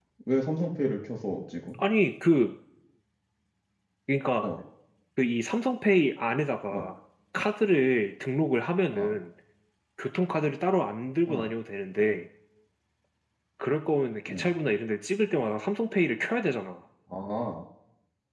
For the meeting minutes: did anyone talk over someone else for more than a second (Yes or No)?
No